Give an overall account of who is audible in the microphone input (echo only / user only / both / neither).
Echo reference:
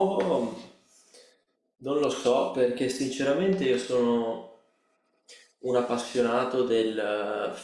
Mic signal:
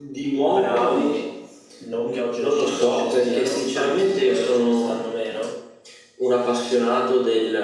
both